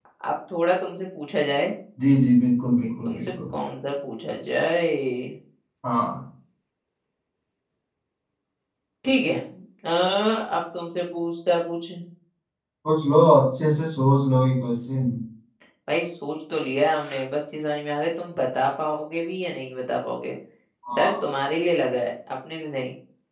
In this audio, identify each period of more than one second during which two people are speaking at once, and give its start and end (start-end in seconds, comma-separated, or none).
none